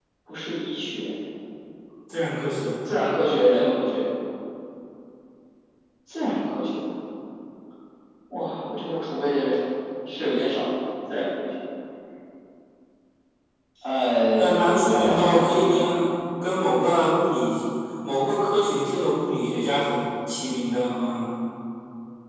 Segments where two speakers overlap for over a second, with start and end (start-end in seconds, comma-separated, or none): 14.4-16.0